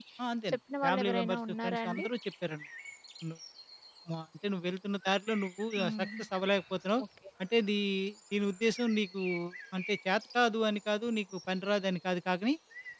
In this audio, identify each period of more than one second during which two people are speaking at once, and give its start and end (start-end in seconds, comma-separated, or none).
0.5-2.1